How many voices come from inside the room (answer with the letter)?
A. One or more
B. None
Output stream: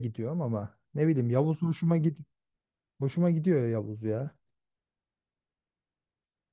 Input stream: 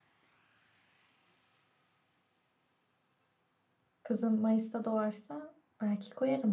A